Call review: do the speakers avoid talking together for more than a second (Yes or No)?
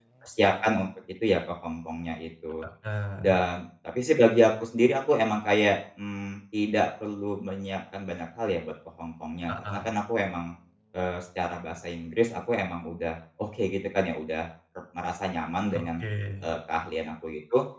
Yes